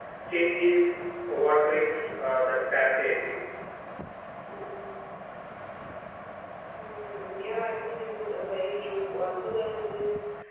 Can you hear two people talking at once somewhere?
No

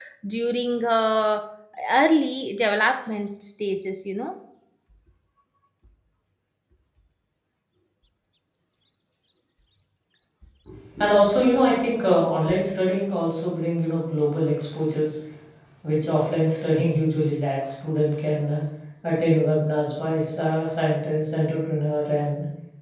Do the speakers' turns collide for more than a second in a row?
No

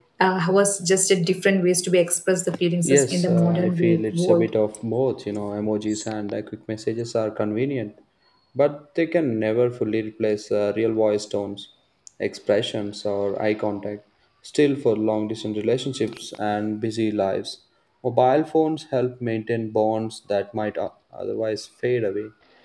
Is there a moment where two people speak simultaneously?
Yes, from 2.8 s

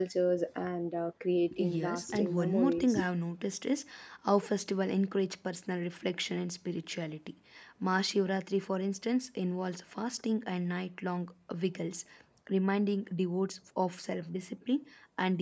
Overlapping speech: Yes, from 1.4 s

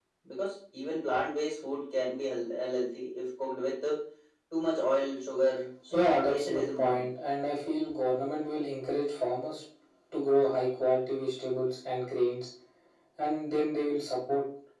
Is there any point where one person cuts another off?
Yes, from 5.9 s

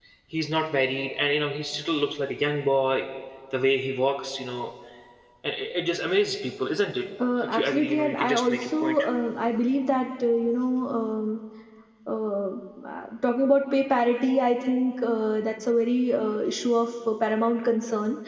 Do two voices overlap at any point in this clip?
Yes, from 7.4 s

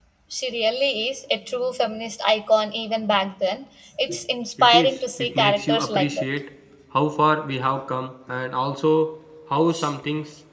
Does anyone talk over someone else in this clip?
Yes, from 4.6 s

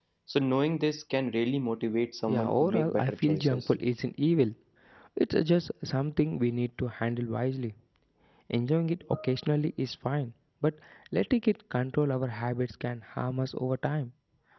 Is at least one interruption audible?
Yes, from 2.3 s

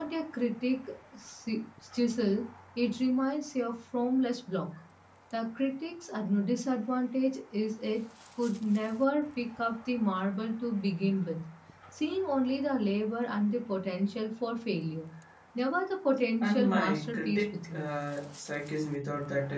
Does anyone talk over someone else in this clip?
Yes, from 16.4 s

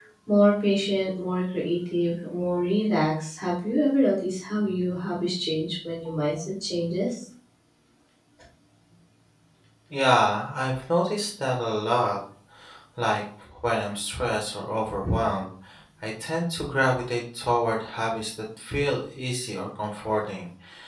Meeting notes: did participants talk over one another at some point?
No

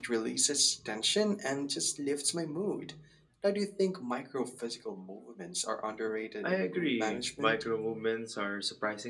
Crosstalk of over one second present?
Yes, from 6.4 s

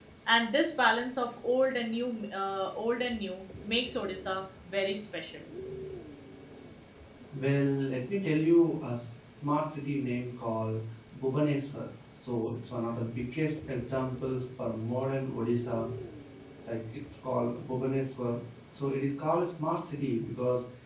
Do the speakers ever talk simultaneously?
No

